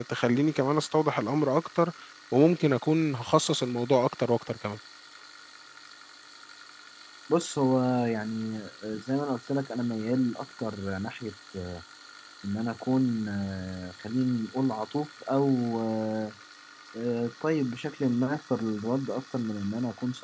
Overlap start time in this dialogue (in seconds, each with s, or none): none